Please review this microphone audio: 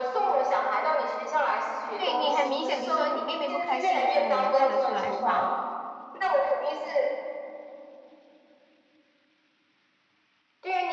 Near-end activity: present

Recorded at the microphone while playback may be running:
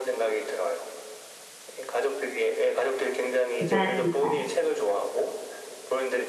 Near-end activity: present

